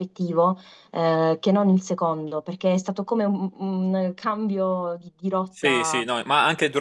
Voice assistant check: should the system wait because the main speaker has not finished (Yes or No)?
No